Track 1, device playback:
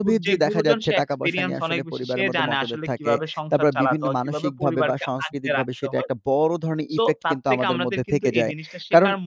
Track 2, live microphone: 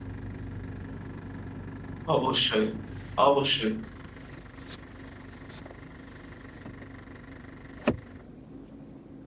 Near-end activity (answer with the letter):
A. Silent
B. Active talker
B